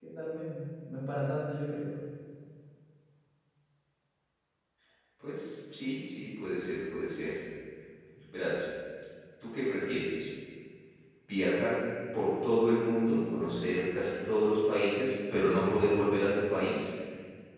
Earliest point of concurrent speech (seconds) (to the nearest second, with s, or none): none